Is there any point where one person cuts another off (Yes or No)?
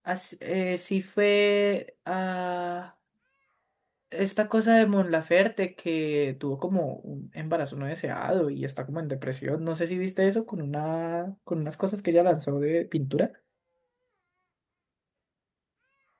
No